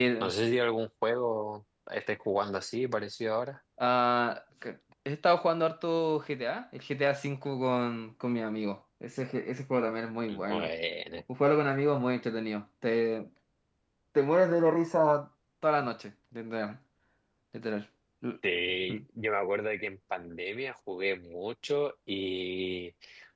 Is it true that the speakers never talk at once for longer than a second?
Yes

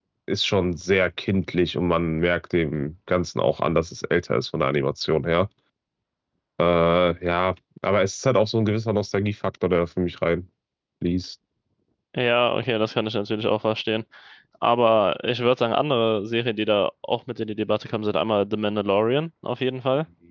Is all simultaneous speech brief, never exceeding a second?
Yes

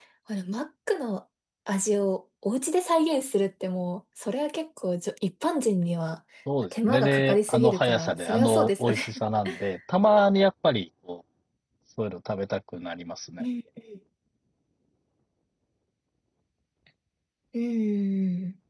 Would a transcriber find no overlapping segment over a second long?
No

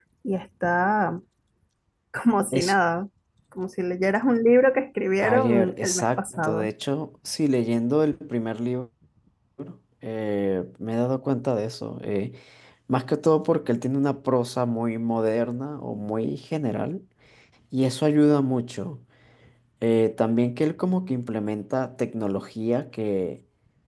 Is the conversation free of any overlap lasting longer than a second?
No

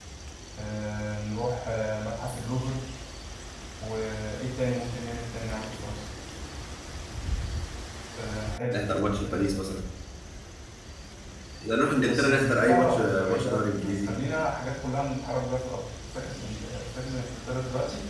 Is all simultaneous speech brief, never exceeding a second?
No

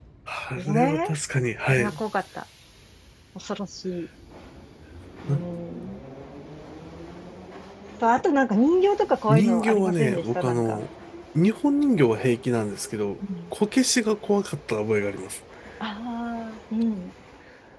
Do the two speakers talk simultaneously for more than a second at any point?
Yes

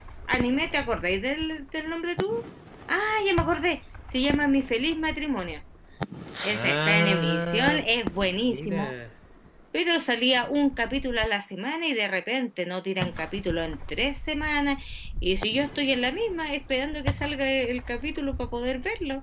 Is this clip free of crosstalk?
No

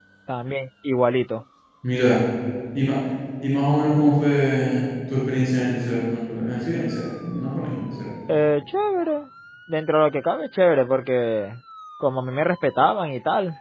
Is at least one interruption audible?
No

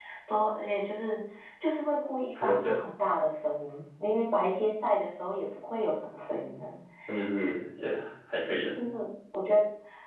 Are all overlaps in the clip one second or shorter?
Yes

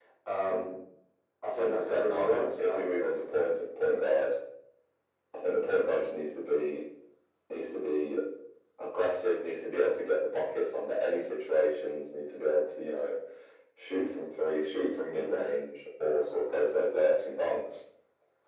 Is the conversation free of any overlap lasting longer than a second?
No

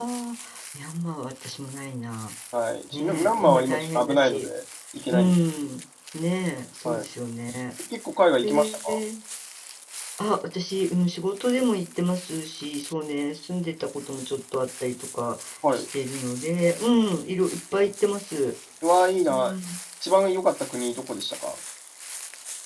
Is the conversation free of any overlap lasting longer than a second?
No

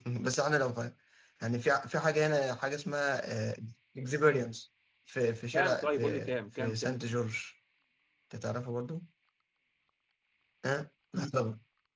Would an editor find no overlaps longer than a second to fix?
No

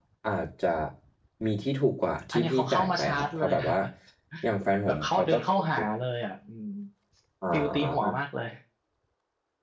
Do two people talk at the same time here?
Yes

